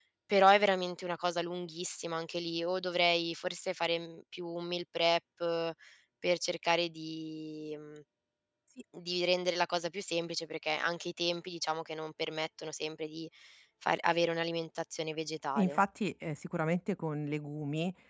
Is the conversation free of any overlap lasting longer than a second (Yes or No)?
Yes